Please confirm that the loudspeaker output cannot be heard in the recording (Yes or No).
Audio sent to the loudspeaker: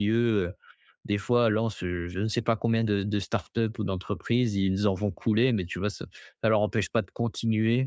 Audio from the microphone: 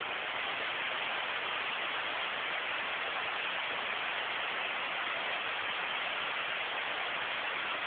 Yes